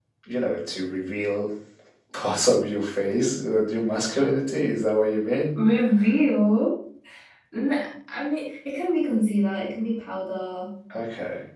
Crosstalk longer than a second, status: none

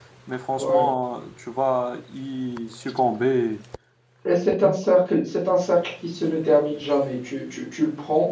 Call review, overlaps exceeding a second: none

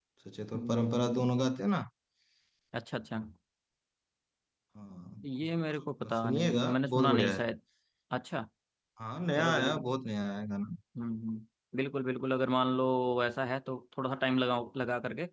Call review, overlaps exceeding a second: present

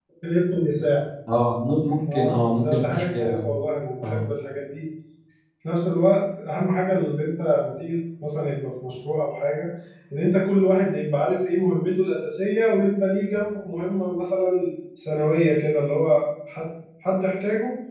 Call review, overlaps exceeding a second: present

